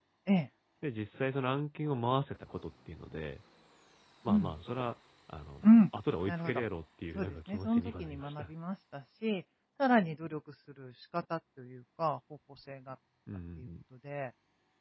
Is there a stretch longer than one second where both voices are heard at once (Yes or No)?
Yes